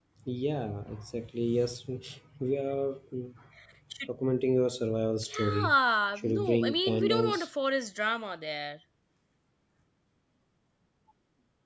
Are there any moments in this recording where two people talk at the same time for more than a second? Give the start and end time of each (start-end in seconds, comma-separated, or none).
6.2-7.5